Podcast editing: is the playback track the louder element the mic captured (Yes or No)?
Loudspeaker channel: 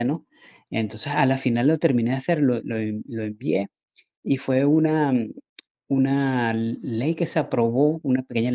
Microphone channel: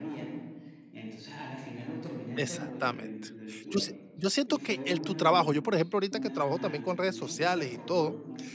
No